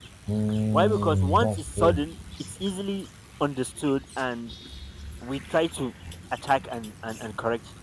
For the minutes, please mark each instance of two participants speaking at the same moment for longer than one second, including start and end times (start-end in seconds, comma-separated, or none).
0.7-2.0